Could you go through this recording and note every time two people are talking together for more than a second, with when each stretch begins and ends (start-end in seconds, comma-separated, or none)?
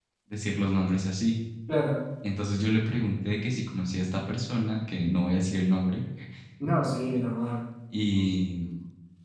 none